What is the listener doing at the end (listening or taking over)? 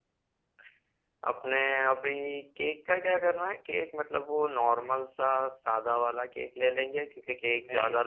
listening